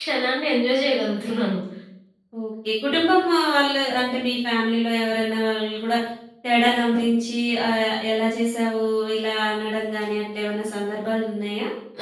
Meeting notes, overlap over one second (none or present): none